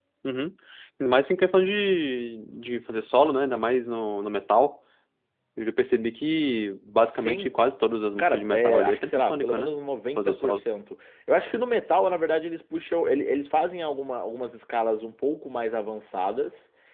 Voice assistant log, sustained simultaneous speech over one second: present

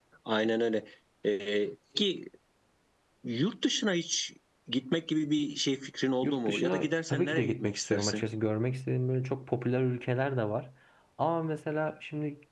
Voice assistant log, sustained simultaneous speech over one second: present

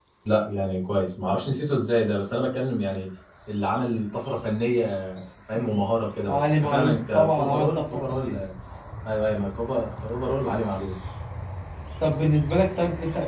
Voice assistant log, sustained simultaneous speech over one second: present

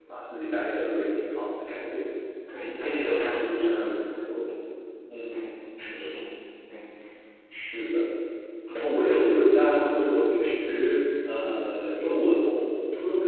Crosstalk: present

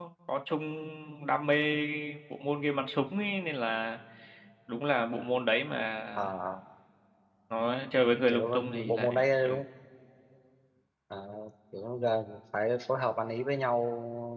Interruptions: present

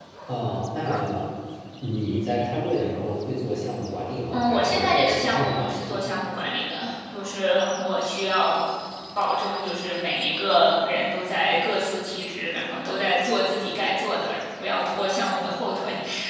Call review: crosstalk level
present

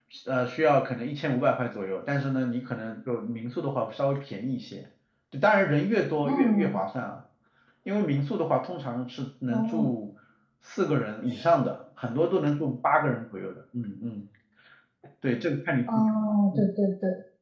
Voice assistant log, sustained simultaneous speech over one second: none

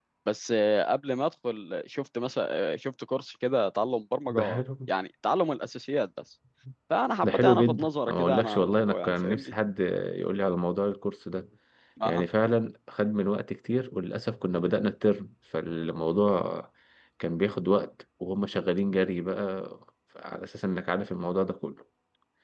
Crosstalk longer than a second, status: present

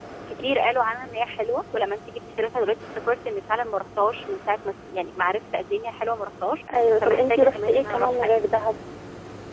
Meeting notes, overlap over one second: present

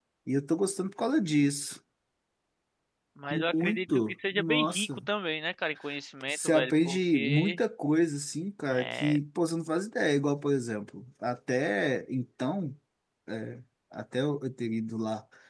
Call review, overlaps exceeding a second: present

